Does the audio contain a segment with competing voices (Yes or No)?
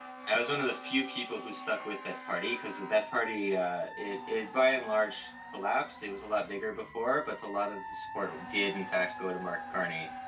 No